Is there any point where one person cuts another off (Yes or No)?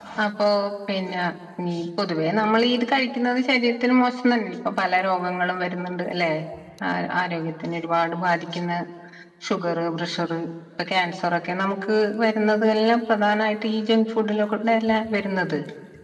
No